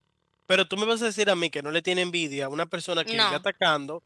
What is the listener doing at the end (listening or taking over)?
listening